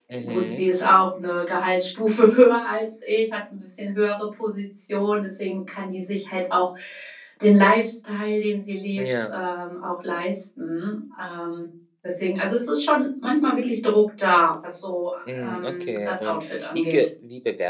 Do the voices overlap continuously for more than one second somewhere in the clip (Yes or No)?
Yes